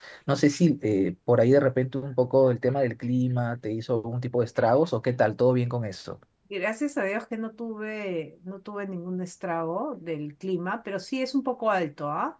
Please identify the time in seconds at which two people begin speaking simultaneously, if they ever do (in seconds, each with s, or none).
none